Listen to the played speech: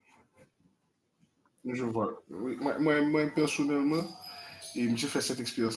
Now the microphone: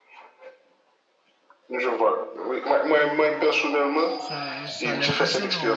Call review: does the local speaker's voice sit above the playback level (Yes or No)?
No